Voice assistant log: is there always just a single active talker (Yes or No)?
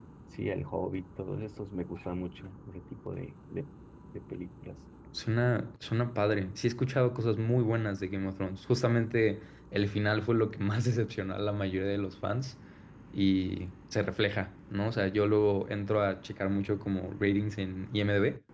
Yes